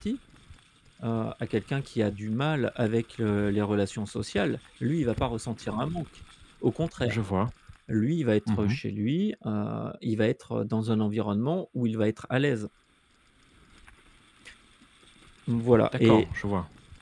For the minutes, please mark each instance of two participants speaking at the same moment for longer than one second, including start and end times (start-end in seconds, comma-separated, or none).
none